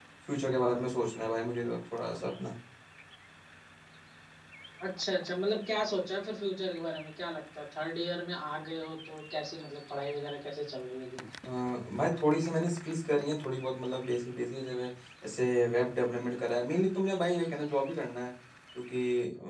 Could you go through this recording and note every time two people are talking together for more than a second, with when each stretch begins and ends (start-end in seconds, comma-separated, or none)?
none